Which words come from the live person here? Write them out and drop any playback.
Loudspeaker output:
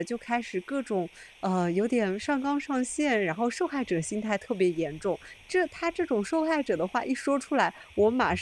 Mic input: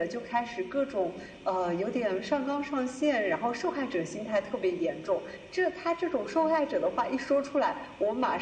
none

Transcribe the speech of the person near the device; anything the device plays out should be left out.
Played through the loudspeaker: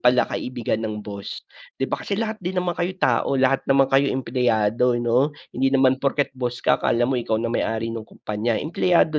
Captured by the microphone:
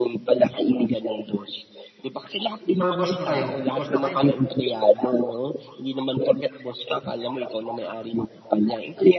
Or boss na kayo. Boss na kayo, 'no?

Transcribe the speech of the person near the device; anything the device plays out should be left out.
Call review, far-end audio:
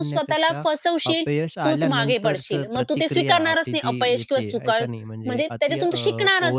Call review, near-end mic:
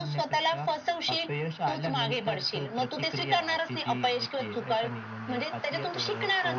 none

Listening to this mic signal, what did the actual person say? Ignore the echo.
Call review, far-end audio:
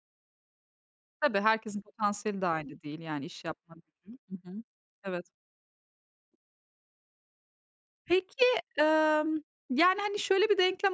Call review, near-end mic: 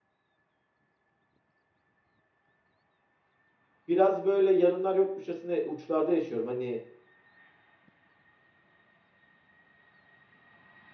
biraz, böyle, yarınlar yokmuşçasına uçlarda yaşıyorum. Hani,

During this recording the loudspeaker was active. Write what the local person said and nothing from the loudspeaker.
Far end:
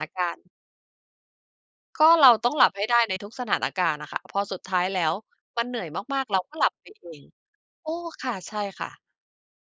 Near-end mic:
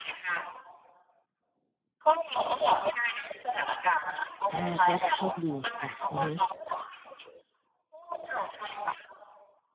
อา ก็โชคดีค่ะ อือฮึ

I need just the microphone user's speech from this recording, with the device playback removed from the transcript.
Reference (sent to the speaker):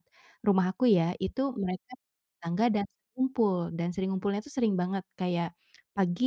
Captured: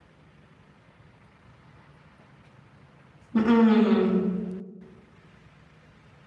Mmm.

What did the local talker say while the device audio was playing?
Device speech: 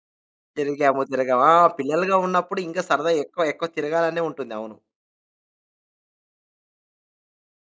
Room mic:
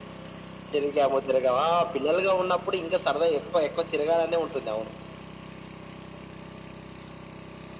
none

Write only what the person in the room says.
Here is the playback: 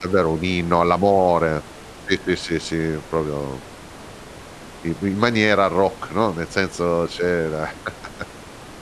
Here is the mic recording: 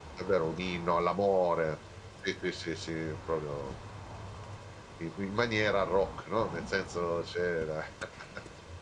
none

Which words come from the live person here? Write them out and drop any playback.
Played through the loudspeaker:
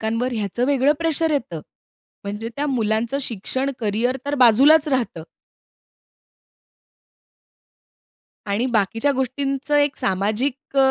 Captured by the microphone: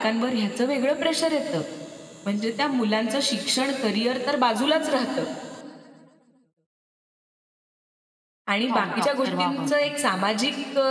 हो, डॉक्टर व्हावं पण नक्की.

